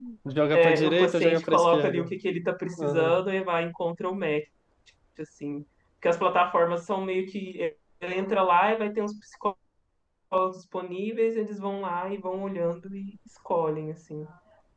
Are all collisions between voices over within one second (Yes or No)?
No